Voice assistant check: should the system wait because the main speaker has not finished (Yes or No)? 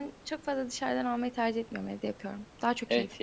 No